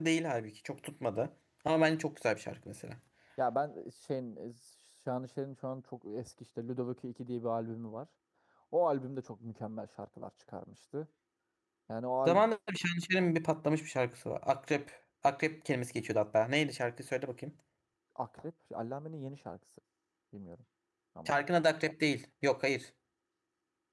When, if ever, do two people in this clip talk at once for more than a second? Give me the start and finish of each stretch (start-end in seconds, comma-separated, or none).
none